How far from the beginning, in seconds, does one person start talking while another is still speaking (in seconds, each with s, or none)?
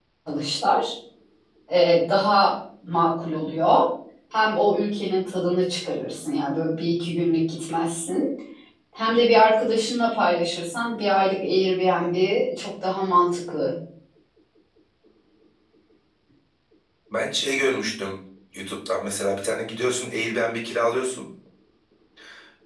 none